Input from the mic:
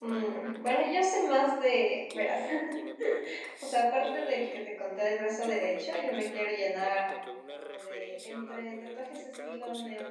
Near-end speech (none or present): present